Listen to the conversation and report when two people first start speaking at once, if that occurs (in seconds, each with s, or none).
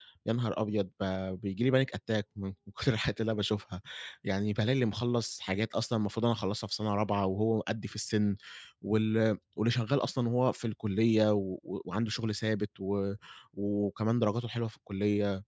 none